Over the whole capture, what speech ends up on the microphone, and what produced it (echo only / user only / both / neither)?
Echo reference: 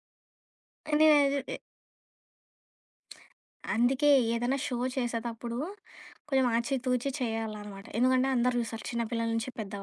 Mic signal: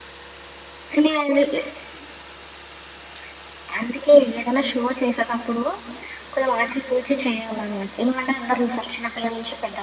echo only